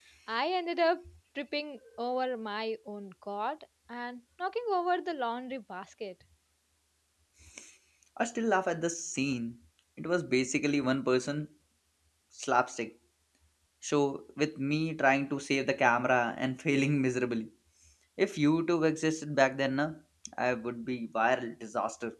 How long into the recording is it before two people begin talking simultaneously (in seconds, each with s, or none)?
none